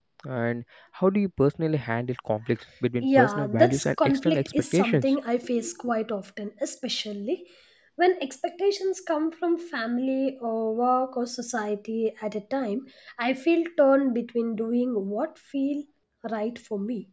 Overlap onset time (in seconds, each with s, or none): 3.0 s